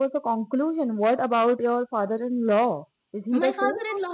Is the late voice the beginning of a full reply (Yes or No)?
Yes